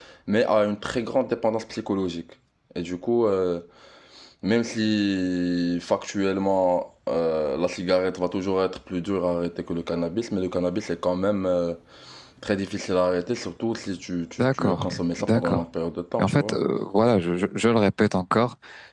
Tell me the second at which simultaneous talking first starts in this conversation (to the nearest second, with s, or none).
14 s